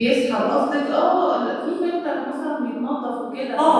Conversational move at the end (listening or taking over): taking over